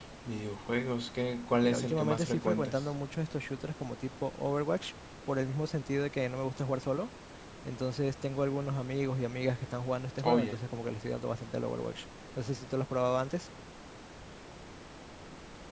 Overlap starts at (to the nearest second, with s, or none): 2 s